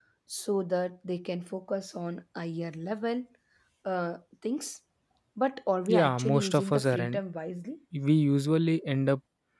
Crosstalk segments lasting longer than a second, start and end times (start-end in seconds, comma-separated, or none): 5.9-7.2